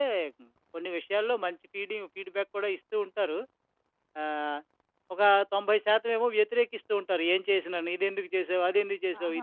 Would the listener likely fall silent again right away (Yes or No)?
No